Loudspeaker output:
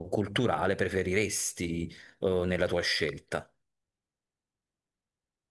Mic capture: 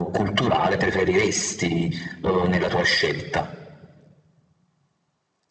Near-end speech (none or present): none